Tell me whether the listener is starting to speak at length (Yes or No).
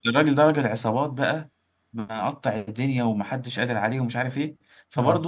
No